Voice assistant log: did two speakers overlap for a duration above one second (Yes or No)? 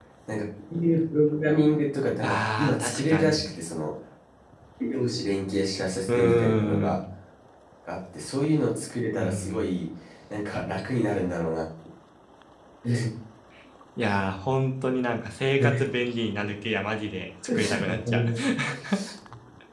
Yes